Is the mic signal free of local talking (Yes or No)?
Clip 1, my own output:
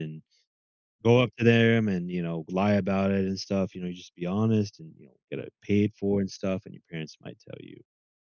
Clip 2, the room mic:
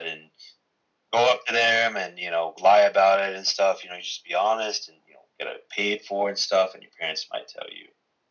Yes